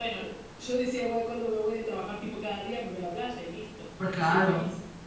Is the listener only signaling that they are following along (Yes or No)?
No